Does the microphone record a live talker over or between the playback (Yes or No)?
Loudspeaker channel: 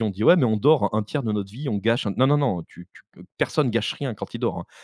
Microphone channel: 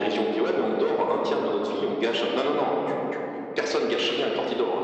No